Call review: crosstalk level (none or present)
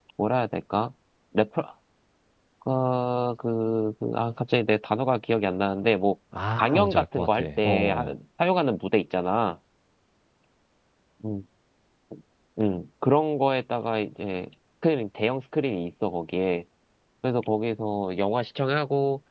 present